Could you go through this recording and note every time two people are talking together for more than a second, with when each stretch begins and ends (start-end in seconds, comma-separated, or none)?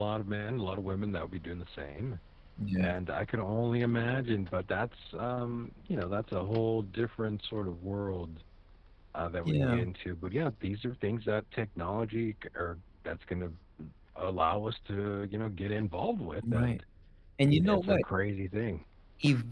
none